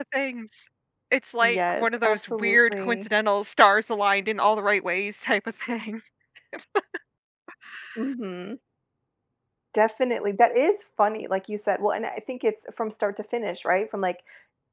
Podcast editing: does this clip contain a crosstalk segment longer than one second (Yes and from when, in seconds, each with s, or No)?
Yes, from 1.4 s